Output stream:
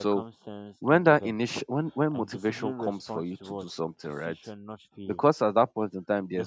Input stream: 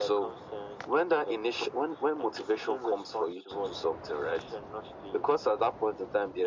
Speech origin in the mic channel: echo only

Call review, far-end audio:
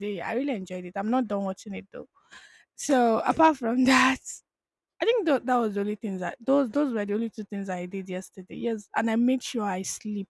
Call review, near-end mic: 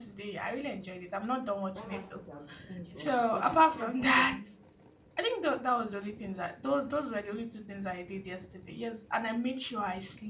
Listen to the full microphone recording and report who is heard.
both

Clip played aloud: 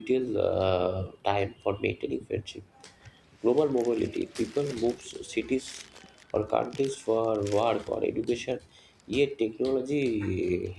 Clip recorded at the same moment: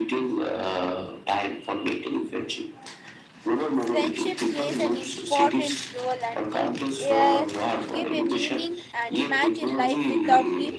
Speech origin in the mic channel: both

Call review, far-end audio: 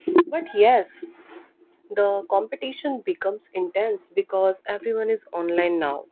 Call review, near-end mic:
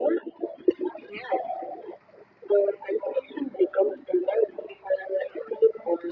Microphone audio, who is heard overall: echo only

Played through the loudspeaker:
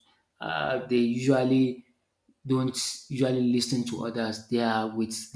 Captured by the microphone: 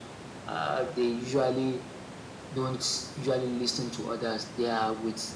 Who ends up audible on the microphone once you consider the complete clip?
echo only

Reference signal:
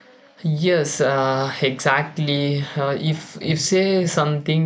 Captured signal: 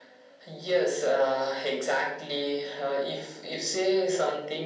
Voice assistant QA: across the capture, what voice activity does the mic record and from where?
echo only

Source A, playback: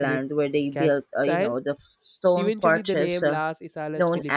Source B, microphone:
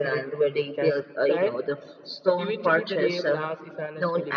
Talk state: echo only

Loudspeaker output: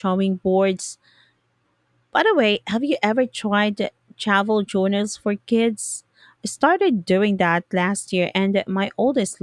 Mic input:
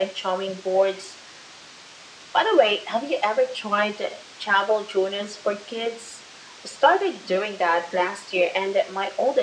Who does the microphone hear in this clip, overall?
echo only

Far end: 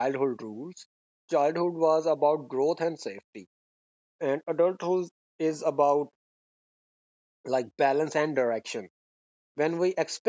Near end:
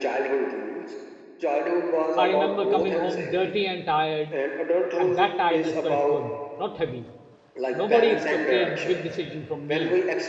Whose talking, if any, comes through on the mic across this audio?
both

